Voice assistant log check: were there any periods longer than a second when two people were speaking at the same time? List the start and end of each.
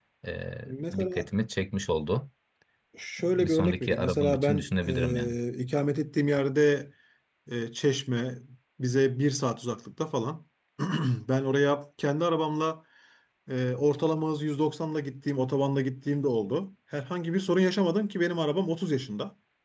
3.2-5.3

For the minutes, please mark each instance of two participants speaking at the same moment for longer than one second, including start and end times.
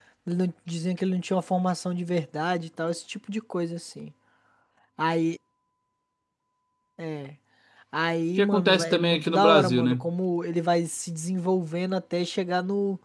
8.4-10.0

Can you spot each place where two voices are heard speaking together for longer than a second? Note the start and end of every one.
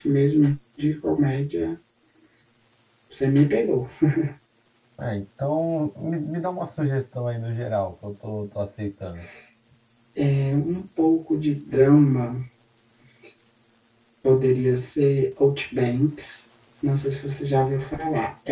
none

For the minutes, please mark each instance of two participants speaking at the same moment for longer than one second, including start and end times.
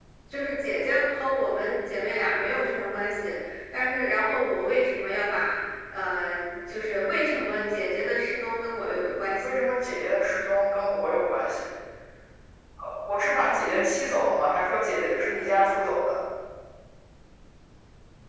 none

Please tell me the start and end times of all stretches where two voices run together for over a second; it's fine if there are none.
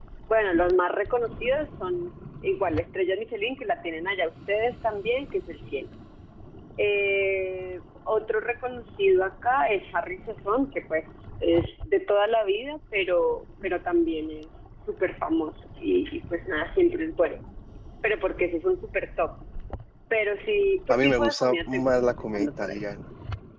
20.9-22.8

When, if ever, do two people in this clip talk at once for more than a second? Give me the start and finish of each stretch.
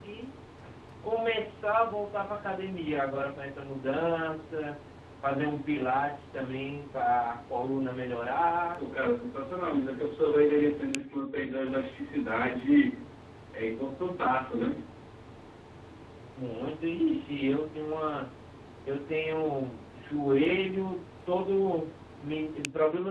none

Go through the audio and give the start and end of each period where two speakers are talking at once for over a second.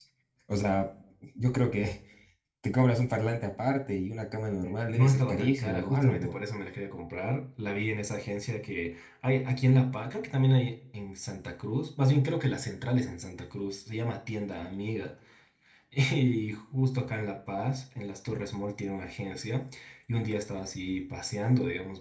4.9-6.4

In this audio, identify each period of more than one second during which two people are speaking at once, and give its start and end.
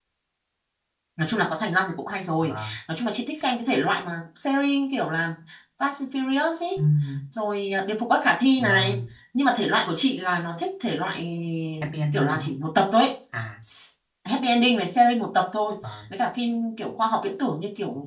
none

